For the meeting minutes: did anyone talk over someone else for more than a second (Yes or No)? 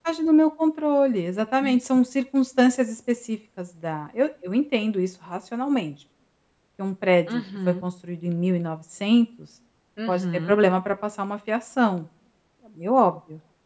No